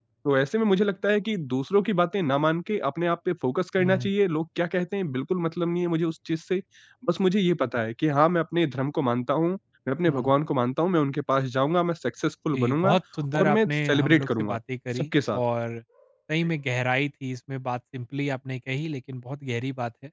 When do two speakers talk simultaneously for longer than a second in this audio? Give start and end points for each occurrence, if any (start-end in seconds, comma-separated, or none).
13.3-14.6